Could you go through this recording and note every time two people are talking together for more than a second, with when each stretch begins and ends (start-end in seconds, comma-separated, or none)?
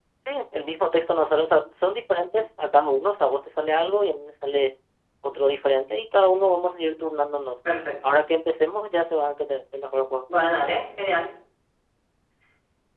none